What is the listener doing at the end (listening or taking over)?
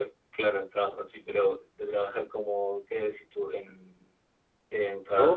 taking over